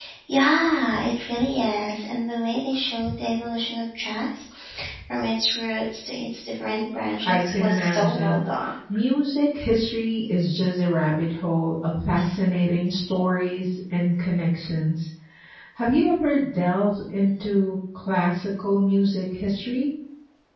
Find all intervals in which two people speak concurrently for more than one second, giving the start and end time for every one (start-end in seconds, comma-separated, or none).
6.6-8.4